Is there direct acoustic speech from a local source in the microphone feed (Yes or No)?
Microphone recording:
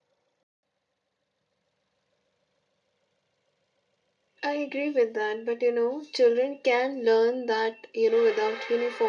Yes